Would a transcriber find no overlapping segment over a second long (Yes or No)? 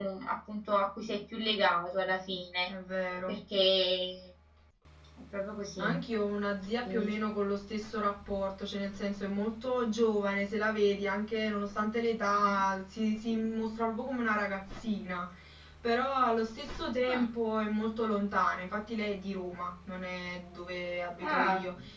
Yes